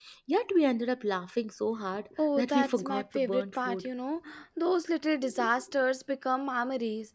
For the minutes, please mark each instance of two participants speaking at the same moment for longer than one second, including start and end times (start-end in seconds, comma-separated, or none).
2.4-3.9